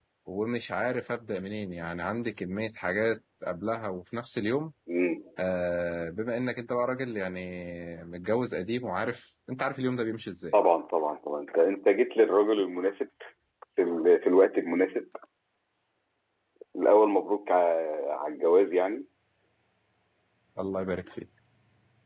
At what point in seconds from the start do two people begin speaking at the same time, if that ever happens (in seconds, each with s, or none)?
none